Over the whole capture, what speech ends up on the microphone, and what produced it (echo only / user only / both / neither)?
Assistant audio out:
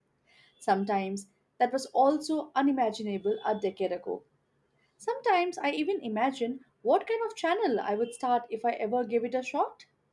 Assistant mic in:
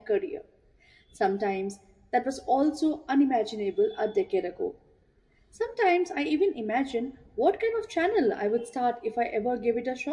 echo only